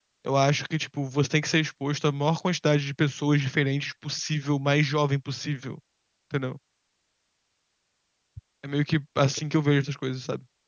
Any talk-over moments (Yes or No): No